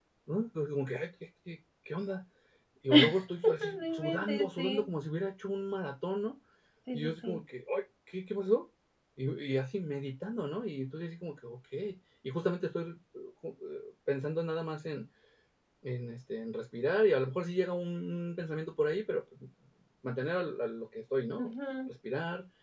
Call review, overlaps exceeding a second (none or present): present